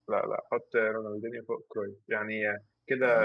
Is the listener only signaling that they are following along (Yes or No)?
No